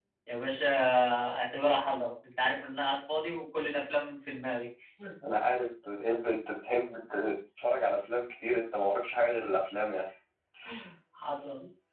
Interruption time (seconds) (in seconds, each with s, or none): none